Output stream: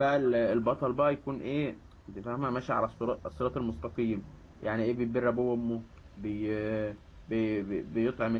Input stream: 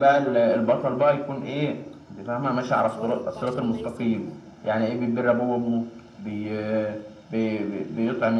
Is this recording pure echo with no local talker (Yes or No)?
No